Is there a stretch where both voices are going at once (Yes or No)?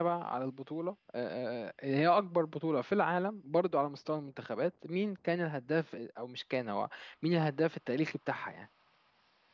No